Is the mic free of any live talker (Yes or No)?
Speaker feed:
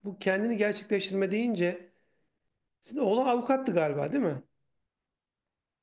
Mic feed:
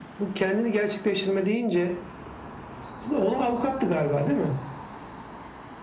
Yes